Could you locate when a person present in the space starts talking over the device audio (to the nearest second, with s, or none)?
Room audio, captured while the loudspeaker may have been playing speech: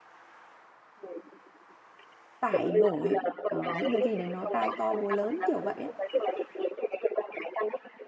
2 s